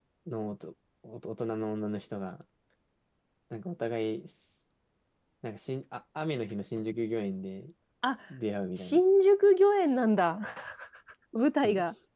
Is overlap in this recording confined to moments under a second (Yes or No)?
Yes